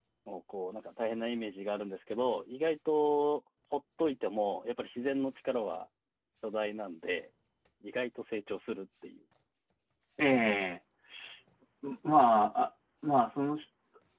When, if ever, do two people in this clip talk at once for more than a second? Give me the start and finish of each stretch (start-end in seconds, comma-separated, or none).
none